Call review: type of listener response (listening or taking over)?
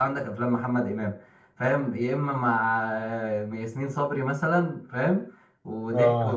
taking over